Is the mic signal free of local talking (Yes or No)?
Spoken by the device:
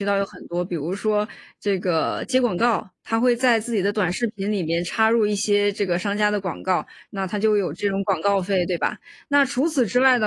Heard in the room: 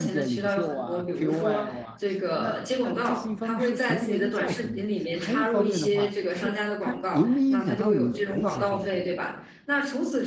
No